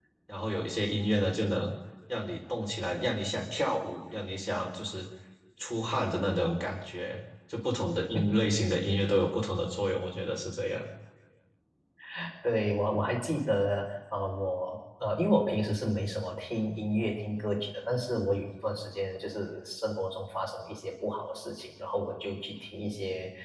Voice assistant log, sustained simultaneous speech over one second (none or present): none